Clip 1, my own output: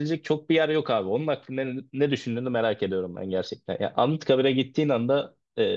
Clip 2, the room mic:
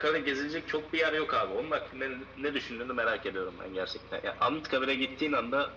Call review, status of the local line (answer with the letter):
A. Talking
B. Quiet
B